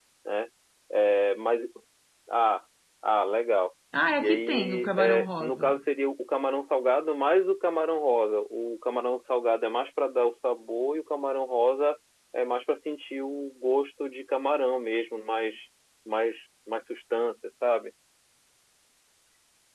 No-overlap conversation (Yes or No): No